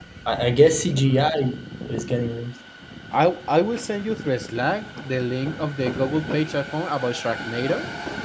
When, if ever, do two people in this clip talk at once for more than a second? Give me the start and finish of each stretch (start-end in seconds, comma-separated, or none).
none